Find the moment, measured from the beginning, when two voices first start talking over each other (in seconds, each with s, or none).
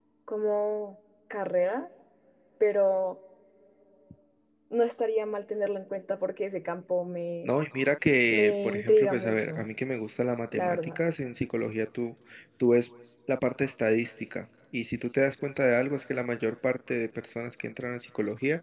8.3 s